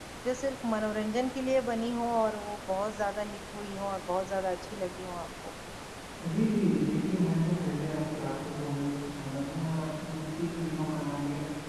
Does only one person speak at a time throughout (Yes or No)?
Yes